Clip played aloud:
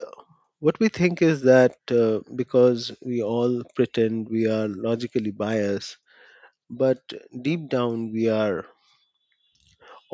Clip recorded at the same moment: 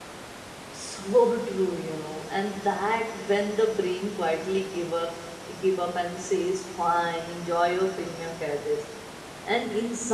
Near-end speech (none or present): present